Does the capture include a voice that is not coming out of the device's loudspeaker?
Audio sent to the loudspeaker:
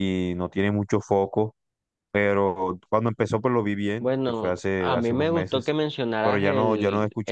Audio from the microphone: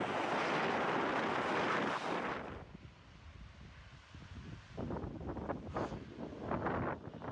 No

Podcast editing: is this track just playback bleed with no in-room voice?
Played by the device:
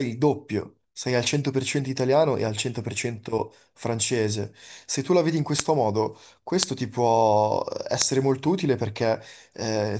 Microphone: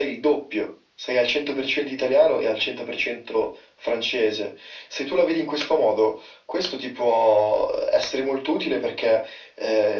Yes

